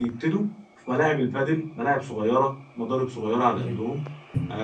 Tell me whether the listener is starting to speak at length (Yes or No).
No